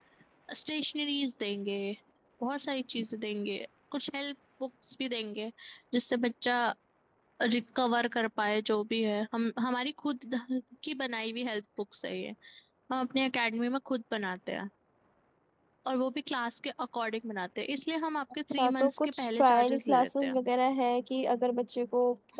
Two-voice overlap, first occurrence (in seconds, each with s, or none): 18.5 s